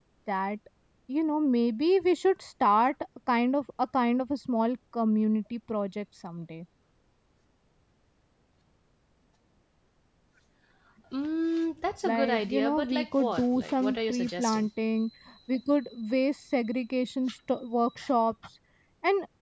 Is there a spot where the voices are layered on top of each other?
Yes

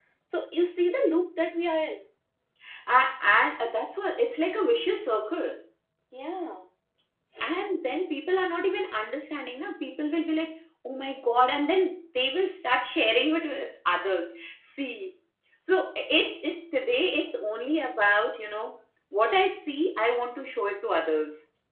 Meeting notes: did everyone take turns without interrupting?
Yes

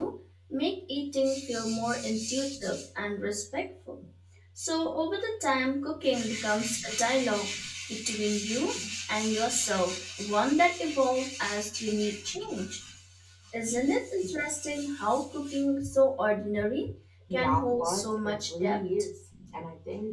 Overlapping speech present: Yes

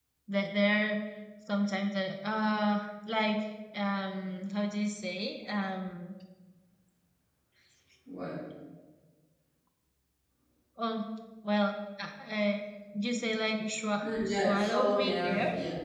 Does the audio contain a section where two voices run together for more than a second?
Yes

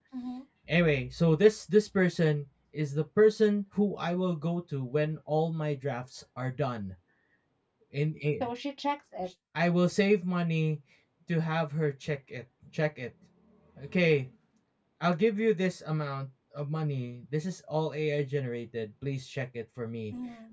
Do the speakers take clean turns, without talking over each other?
Yes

